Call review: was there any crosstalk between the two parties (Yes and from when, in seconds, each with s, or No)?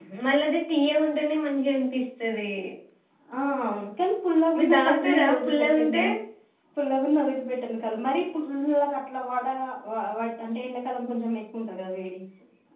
Yes, from 4.8 s